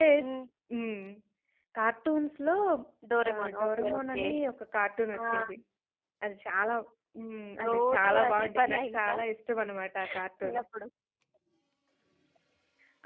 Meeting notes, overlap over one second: present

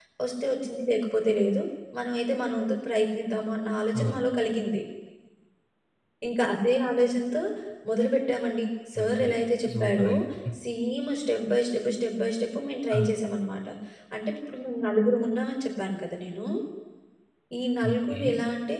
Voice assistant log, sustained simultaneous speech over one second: none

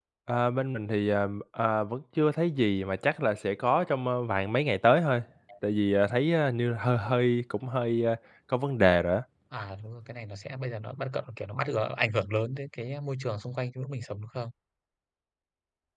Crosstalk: none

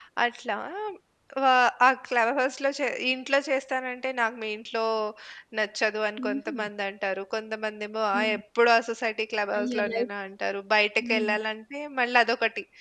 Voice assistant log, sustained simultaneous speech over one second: none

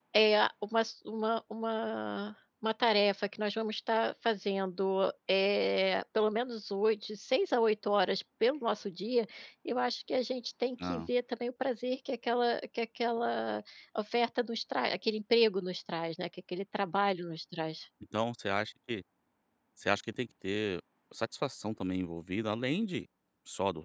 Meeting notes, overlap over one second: none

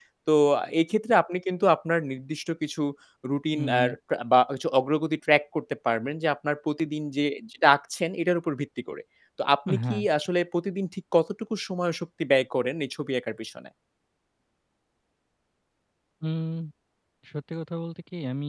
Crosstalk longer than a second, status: none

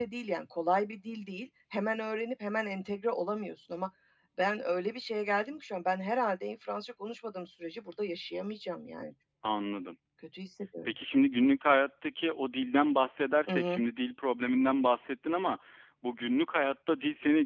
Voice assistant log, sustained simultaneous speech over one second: none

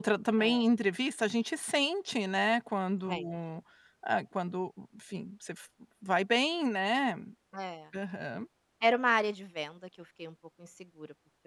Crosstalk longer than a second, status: none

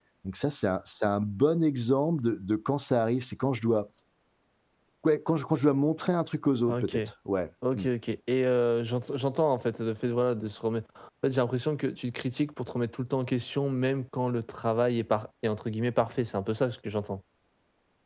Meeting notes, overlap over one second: none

